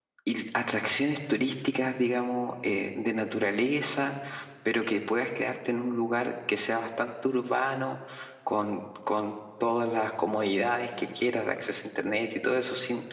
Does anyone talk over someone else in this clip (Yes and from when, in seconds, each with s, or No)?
No